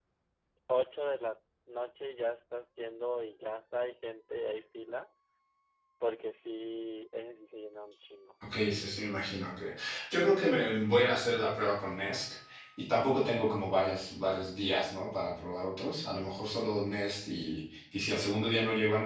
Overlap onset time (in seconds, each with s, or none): none